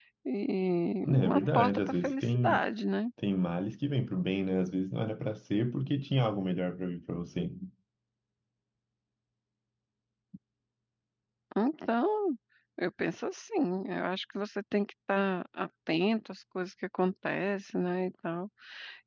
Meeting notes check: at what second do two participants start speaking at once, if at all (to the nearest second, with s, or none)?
1 s